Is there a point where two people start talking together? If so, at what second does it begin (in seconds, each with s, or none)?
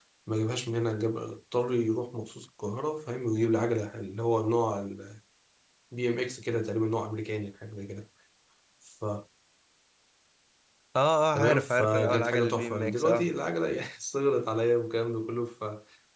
11.3 s